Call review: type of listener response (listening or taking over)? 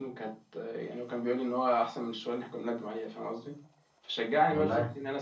listening